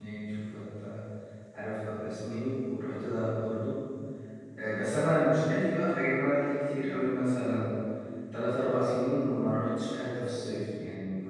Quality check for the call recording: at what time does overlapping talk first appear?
none

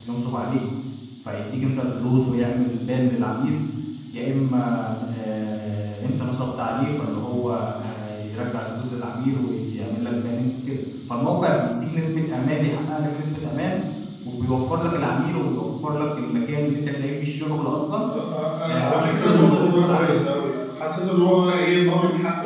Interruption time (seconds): 18.7 s

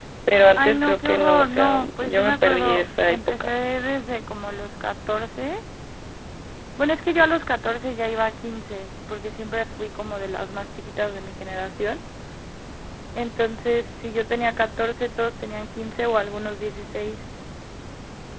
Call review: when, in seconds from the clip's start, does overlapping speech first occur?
0.6 s

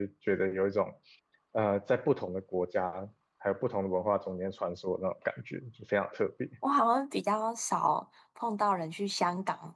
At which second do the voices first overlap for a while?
none

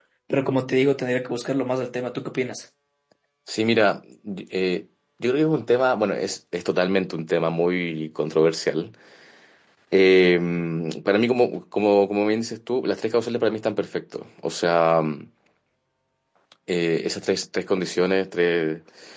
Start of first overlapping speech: none

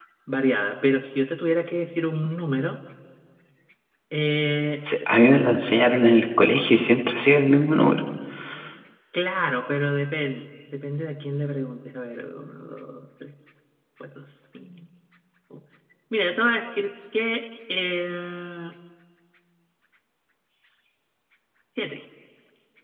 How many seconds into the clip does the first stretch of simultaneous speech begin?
none

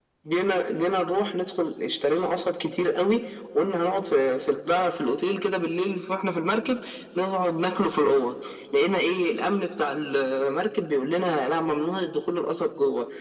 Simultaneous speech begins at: none

